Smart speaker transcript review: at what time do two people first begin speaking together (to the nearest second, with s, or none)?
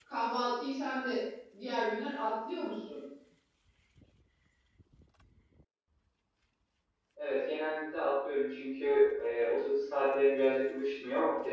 none